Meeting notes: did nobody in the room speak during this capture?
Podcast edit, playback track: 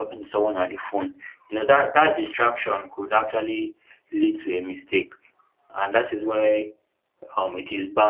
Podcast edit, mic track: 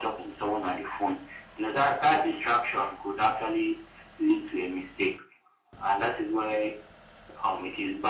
Yes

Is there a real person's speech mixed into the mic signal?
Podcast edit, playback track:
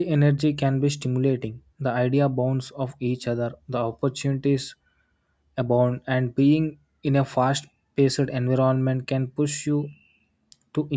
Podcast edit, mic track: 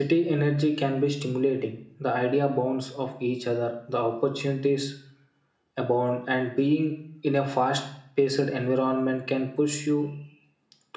No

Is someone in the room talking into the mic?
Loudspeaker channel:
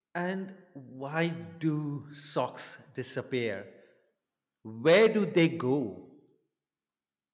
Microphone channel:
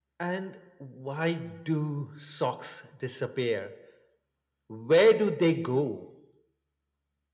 No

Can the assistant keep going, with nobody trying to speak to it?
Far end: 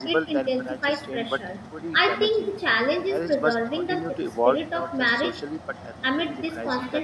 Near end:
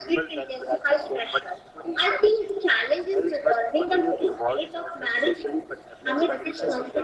No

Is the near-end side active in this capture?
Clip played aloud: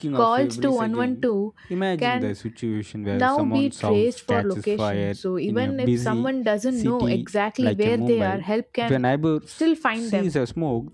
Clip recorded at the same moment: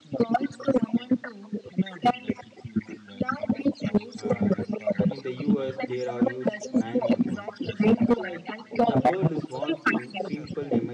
Yes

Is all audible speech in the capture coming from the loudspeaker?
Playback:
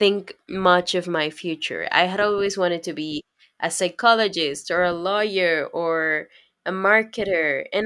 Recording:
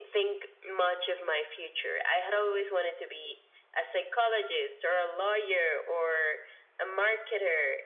Yes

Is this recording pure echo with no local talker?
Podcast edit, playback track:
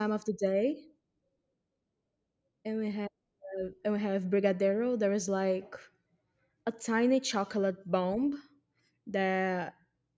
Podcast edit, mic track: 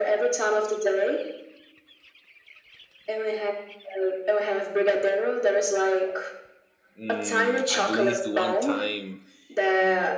No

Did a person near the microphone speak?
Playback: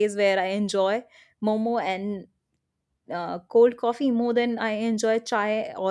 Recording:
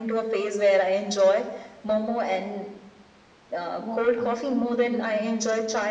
Yes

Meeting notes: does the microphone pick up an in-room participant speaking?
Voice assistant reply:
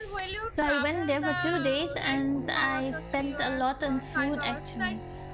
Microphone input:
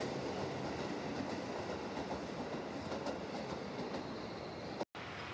No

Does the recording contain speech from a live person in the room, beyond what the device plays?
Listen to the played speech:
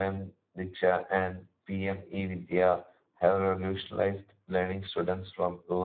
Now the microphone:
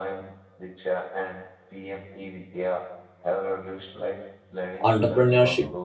Yes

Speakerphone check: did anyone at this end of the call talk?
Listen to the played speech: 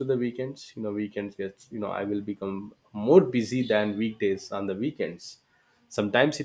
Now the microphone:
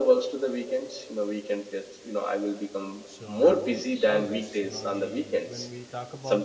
Yes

